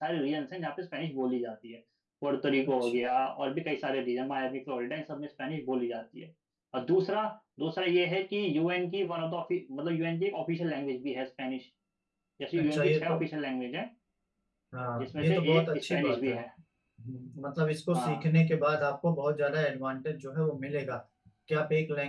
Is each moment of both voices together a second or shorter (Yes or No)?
No